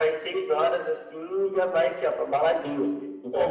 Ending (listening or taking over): taking over